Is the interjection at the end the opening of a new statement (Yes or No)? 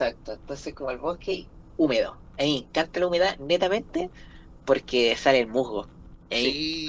No